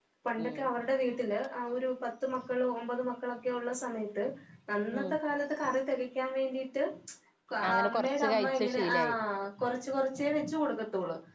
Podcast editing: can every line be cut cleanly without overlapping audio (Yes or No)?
No